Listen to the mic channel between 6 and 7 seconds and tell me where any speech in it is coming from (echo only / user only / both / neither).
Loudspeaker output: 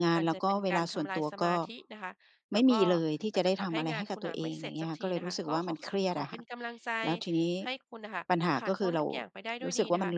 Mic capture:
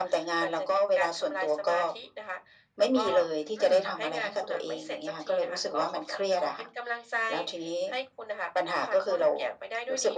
echo only